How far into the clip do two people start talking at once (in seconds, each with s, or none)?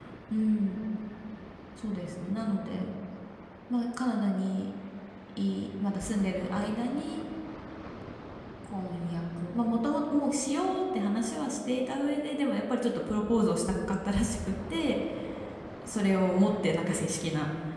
none